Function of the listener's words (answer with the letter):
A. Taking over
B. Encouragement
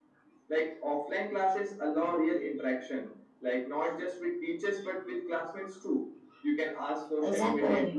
B